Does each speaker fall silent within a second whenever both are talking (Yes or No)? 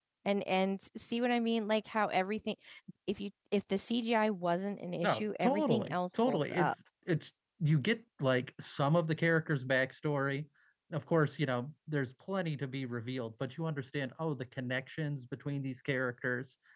No